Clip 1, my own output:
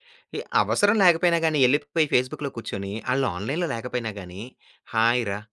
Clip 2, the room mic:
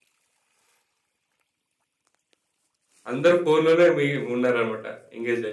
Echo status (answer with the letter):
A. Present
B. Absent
B